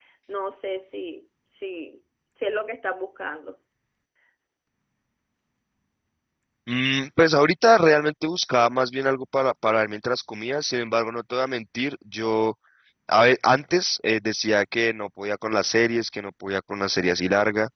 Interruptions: none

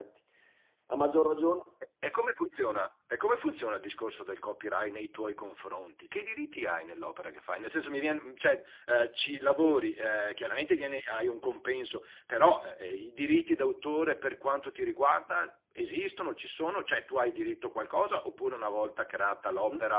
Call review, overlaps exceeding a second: none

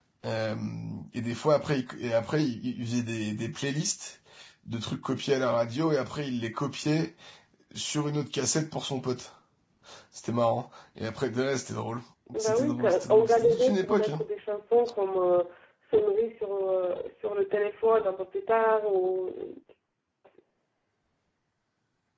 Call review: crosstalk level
present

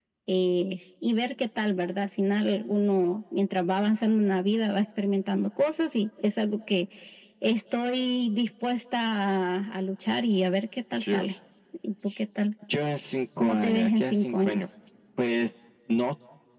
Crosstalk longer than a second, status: present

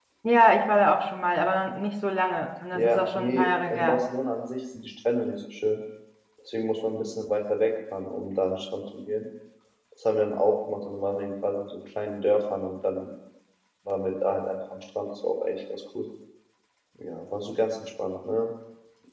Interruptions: present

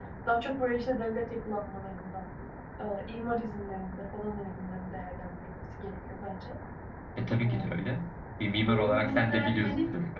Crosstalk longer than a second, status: present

